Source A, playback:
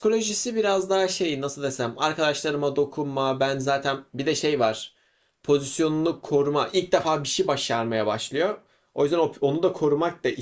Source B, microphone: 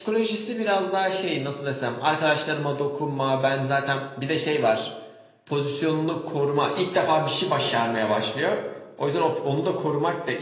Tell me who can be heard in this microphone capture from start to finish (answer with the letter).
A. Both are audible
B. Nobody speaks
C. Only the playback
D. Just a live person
C